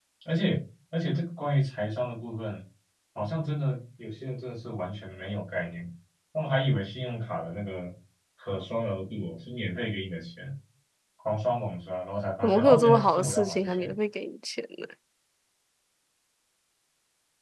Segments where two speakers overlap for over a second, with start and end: 12.4-13.9

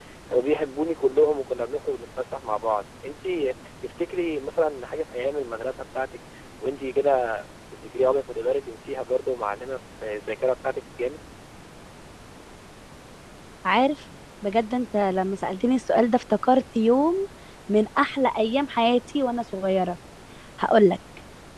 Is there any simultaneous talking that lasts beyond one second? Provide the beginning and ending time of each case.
none

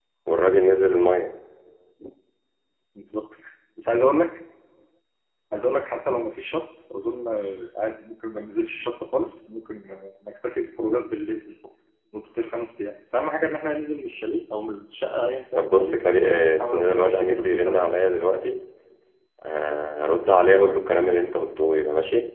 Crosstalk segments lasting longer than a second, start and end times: 15.6-18.0

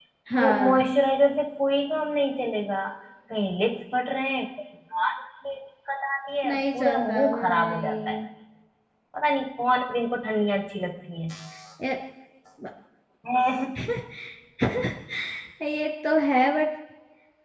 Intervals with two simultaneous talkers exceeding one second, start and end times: 6.5-8.2

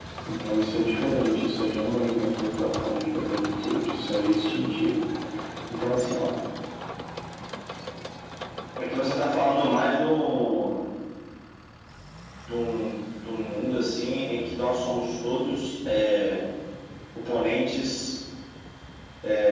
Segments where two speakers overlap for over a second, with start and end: none

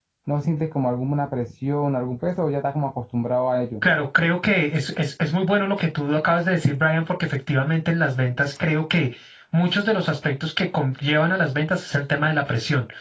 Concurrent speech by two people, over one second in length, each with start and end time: none

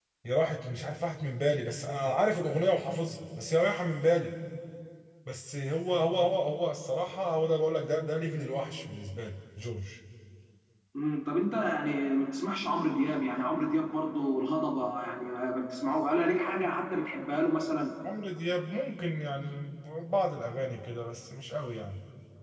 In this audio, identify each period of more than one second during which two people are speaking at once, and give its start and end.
none

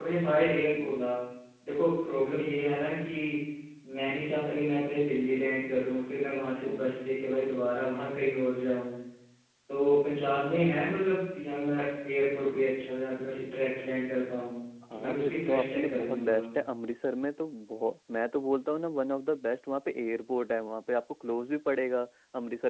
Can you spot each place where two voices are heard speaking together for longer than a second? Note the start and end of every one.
14.9-16.4

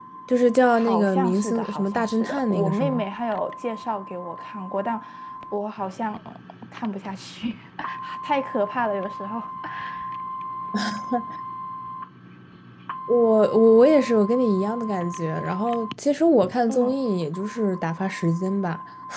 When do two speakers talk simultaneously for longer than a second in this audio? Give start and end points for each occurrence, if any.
0.7-3.0

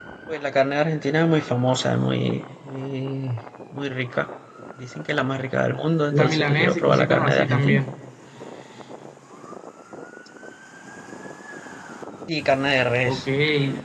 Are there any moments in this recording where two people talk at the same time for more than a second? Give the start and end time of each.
6.1-7.8

